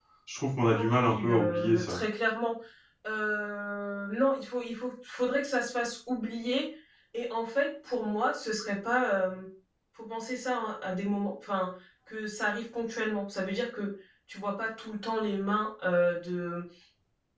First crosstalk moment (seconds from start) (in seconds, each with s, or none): 0.6 s